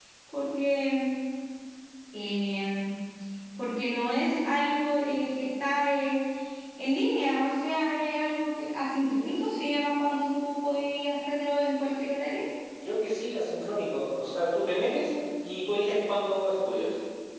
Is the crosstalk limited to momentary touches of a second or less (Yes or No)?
Yes